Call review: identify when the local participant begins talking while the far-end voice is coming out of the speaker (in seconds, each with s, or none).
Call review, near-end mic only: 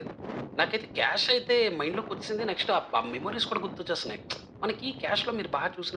none